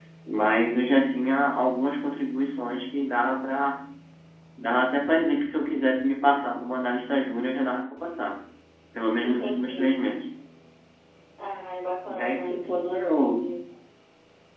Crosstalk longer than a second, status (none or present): present